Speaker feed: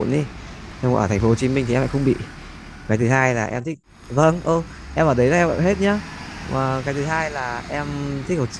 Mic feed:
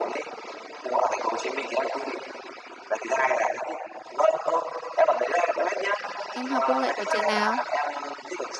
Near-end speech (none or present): present